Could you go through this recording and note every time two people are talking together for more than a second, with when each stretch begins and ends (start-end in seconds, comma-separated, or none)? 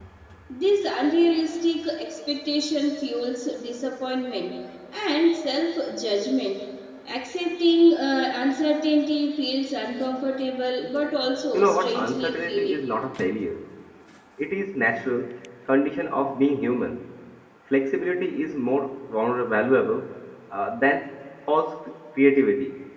11.5-12.8